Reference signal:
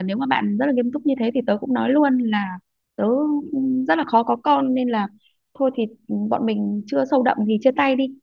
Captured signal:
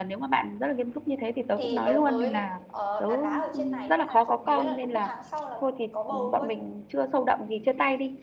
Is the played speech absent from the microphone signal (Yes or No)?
No